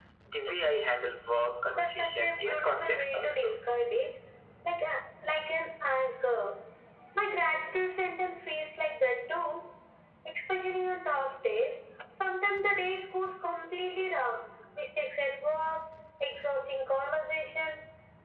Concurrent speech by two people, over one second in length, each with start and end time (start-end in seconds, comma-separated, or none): 1.7-3.6